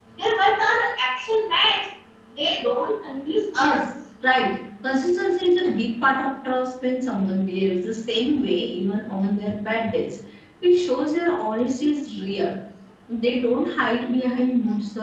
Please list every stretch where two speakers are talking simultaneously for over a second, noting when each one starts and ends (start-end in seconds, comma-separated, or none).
none